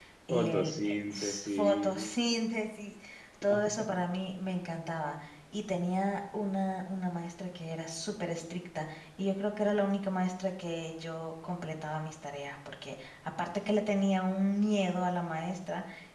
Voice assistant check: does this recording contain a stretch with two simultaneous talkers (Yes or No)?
Yes